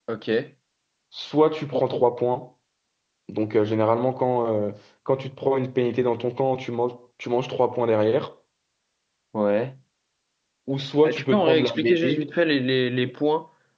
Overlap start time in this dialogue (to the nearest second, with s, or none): 11 s